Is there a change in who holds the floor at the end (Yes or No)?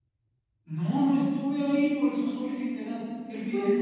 Yes